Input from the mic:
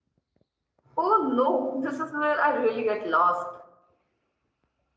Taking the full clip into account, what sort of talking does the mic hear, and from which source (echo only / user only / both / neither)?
user only